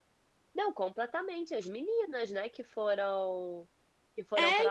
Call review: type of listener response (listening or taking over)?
listening